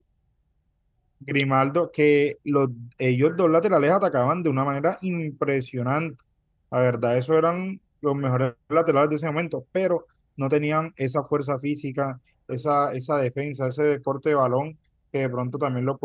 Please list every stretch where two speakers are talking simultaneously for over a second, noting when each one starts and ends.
none

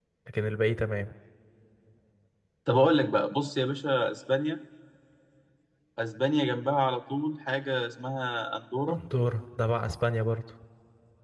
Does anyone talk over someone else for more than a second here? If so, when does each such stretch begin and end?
none

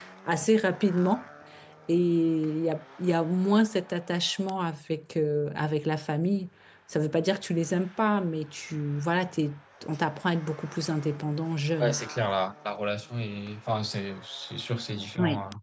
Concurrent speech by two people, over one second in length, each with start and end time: none

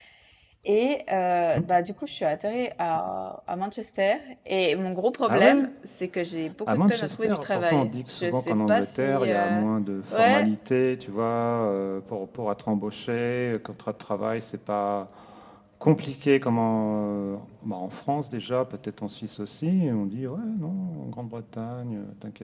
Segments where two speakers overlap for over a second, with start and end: 6.7-9.6

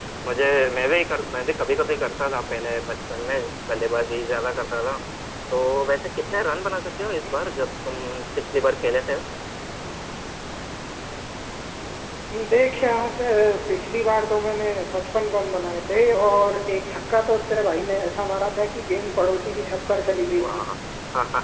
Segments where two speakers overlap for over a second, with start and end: none

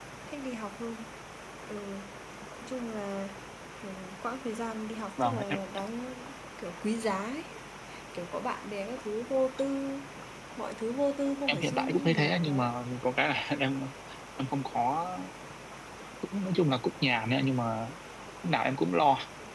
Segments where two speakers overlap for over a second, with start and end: 11.5-12.7

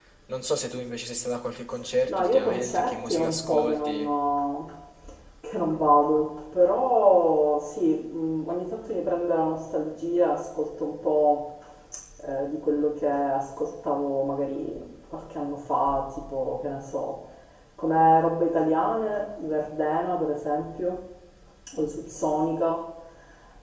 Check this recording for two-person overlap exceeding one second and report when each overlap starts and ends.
2.1-4.1

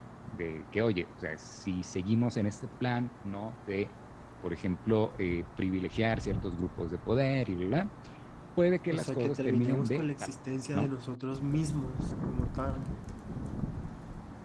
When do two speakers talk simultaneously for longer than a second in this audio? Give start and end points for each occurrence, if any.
8.9-10.3

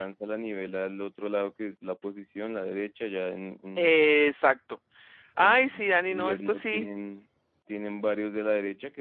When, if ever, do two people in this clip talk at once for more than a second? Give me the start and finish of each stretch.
5.4-6.9

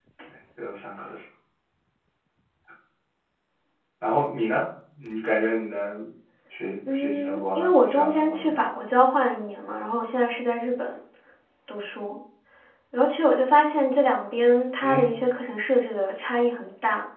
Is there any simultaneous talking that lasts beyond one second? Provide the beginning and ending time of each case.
6.8-8.7

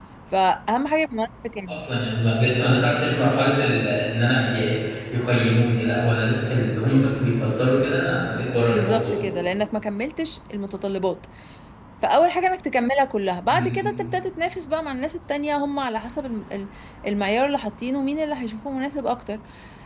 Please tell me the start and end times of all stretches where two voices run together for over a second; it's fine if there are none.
none

